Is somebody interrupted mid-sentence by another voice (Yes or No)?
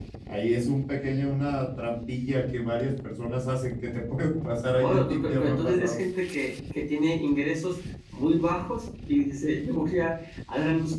Yes